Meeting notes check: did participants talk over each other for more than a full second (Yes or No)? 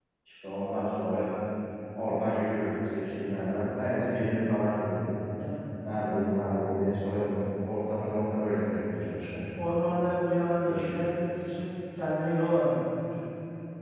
No